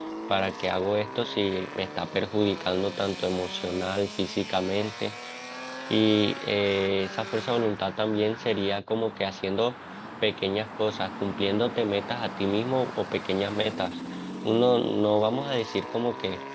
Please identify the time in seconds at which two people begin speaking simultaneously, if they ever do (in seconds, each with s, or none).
none